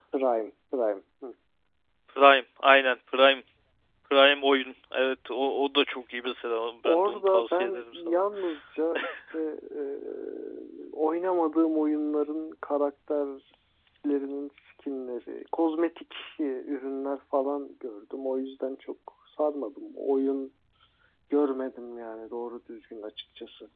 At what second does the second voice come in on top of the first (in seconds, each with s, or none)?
6.8 s